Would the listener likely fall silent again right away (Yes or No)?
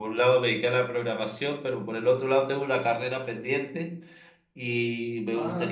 No